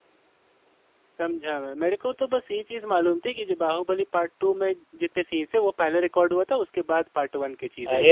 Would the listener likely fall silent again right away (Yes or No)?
No